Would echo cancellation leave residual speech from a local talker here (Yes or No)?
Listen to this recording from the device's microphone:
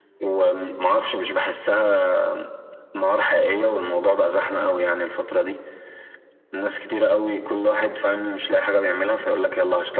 No